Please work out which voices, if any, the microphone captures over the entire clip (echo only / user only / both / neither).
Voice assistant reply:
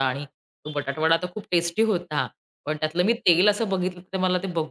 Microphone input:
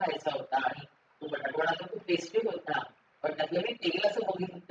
echo only